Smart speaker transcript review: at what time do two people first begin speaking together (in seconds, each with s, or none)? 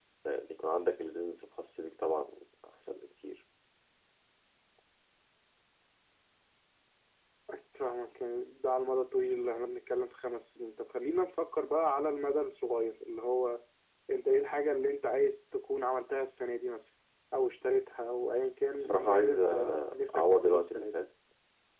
18.7 s